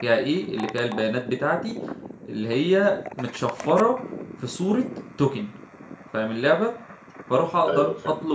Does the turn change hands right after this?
No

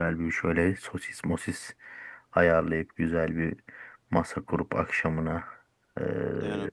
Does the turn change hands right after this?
No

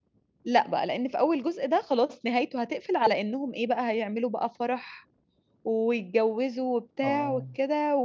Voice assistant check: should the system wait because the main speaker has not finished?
Yes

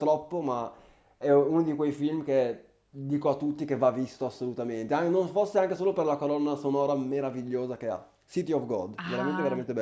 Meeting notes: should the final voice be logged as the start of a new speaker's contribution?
Yes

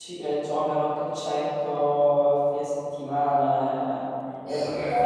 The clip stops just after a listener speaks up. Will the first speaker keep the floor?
Yes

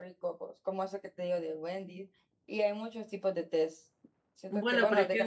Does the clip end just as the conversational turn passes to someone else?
Yes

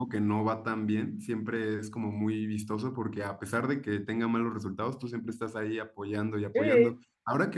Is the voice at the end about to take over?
No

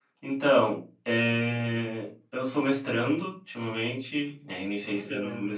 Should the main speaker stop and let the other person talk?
No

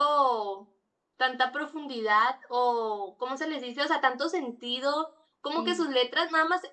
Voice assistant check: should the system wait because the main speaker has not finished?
Yes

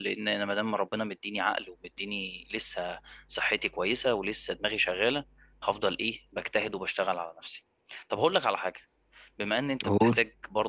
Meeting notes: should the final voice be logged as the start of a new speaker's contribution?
No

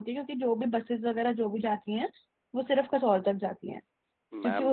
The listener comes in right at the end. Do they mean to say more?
No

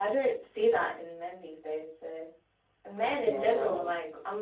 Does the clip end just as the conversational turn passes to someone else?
No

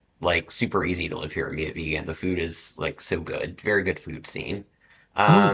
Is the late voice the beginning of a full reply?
Yes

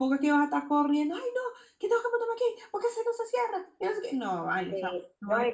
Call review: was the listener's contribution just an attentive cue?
No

